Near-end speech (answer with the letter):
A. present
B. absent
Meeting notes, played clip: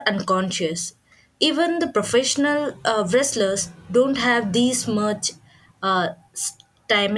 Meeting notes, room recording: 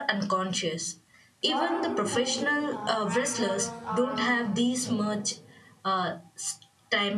A